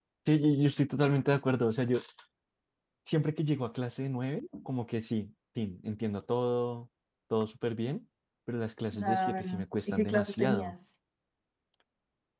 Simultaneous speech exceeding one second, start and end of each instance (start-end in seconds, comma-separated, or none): 8.9-10.7